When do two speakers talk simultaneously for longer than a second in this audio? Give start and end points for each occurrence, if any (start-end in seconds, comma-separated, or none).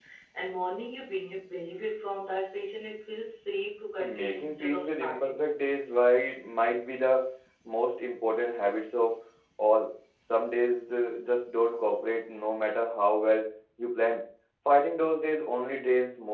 4.0-5.7